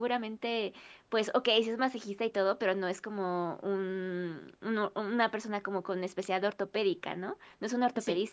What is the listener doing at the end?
listening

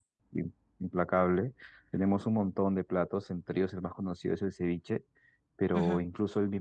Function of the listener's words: listening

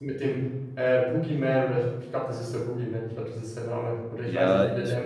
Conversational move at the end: taking over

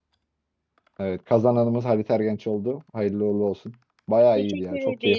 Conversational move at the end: taking over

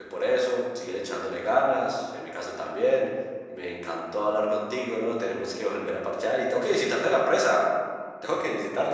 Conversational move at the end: taking over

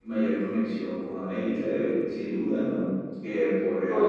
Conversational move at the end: taking over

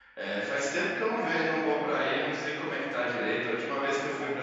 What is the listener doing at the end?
listening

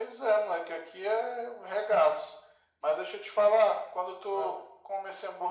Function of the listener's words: listening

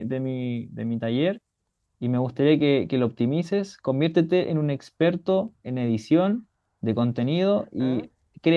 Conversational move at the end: listening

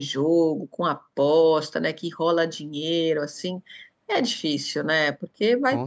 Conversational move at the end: listening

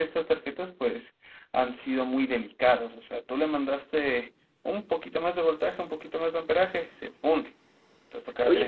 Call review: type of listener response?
taking over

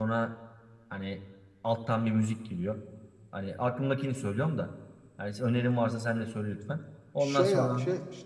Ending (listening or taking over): taking over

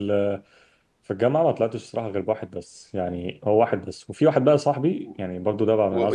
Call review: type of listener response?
taking over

